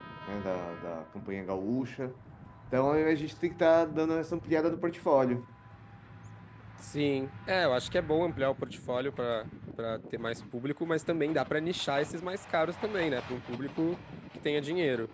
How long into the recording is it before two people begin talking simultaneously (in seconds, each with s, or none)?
none